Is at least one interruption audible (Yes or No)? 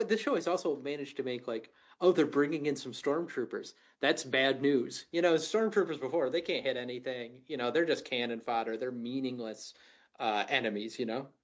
No